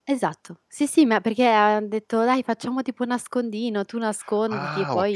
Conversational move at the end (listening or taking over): taking over